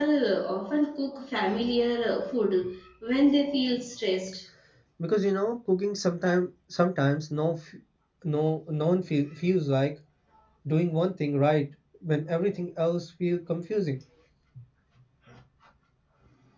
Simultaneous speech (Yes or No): No